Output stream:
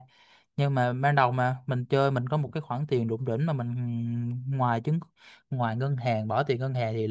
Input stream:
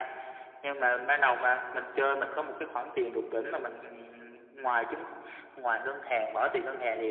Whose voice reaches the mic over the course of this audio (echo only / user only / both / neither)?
echo only